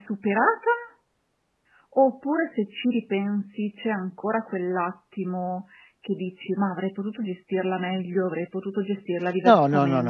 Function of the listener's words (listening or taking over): taking over